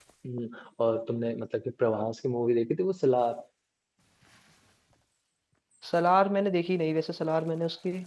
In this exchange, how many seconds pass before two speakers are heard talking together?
none

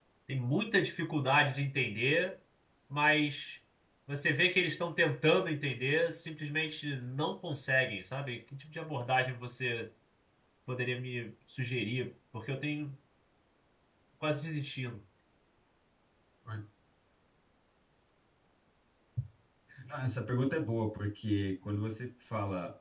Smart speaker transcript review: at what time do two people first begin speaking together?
none

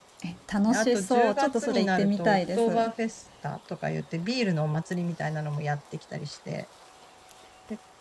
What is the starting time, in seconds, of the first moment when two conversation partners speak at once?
0.7 s

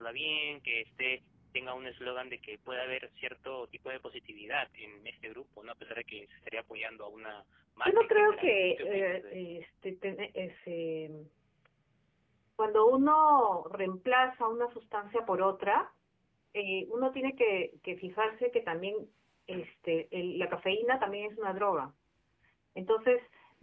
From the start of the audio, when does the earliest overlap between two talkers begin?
7.8 s

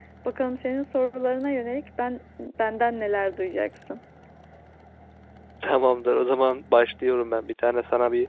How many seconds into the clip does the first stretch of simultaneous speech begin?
none

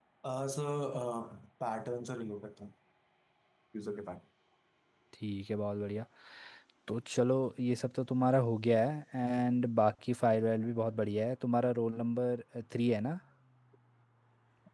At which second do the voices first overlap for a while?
none

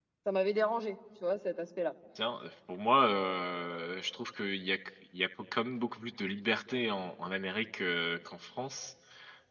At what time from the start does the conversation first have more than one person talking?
none

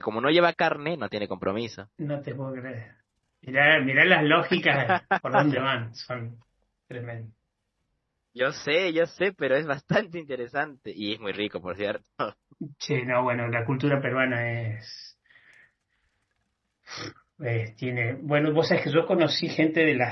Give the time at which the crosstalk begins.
none

